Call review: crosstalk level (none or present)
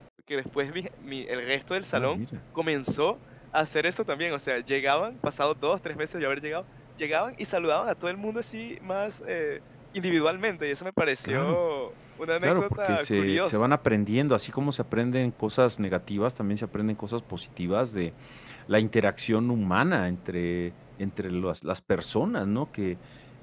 present